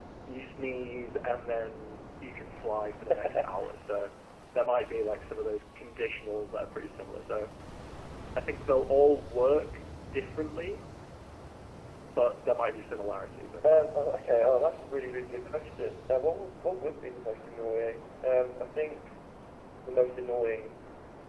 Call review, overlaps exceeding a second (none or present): none